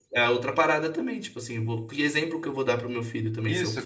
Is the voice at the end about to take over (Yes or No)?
Yes